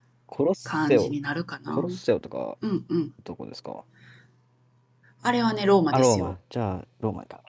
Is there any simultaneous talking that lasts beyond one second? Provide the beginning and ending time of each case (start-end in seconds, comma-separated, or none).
none